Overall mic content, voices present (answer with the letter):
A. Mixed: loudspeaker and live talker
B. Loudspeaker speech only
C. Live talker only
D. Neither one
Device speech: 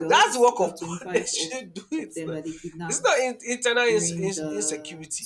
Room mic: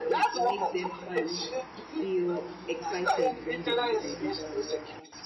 A